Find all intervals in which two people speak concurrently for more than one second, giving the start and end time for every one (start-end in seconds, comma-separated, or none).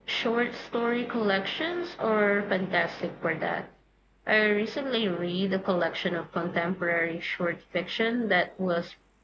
none